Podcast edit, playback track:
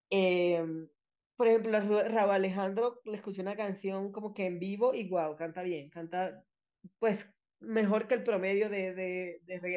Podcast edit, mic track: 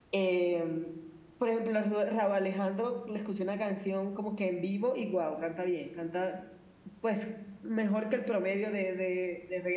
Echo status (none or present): present